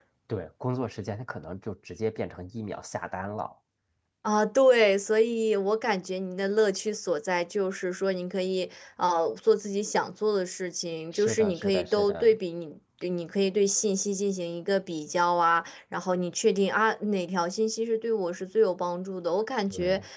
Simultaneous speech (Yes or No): Yes